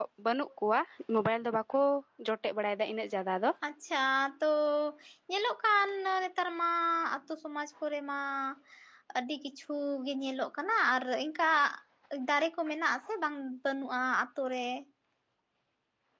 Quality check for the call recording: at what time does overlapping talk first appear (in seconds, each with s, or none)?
none